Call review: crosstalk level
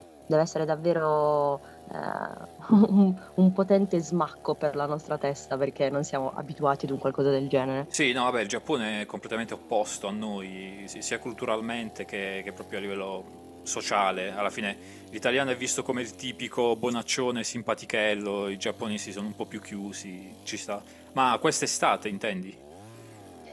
none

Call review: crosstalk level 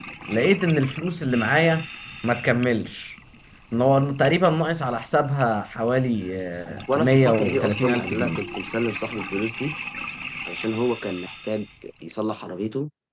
present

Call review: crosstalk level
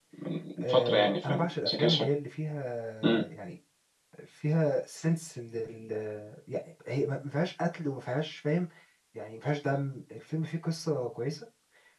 present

